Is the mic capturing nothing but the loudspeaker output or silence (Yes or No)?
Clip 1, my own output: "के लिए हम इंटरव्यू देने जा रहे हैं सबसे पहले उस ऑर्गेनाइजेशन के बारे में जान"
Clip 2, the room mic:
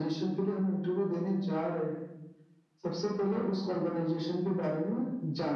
Yes